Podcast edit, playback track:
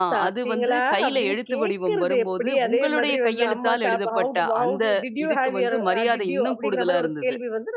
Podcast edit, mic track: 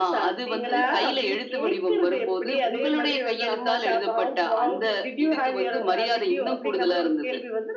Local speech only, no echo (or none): ஏன்னா